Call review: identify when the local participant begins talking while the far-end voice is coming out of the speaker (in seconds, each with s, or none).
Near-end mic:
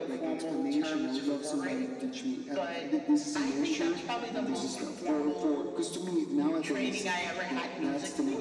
none